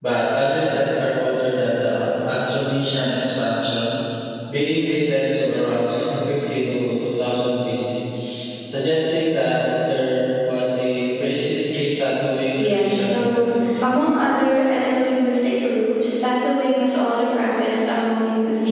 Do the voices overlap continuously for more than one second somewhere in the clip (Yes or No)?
Yes